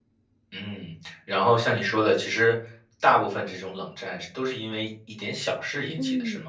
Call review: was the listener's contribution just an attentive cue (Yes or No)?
No